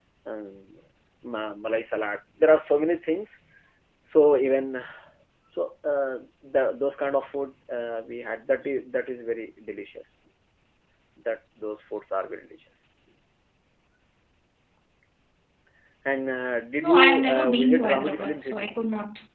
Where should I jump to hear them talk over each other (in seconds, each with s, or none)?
16.8 s